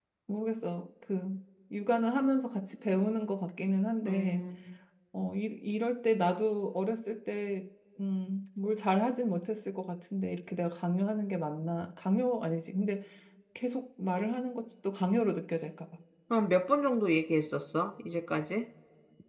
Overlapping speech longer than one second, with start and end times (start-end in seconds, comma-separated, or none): none